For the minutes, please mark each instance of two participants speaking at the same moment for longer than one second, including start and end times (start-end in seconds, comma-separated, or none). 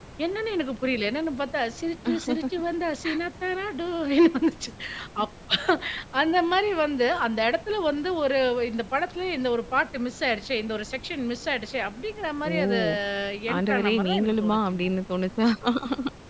13.6-14.8